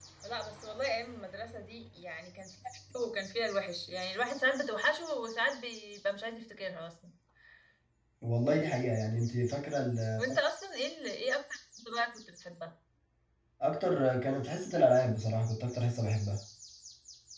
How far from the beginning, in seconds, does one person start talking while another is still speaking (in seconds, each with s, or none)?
none